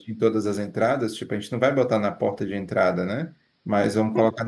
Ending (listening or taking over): listening